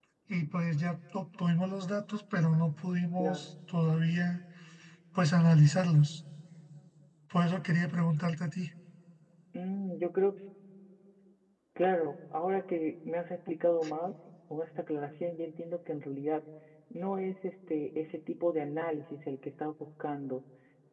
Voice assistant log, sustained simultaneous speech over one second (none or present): none